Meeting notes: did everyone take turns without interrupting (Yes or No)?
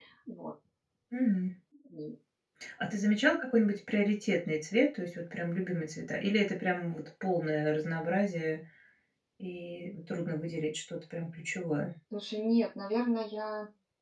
Yes